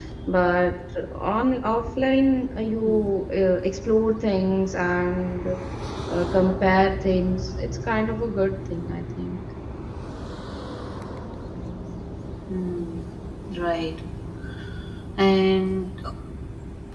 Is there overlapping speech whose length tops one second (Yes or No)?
No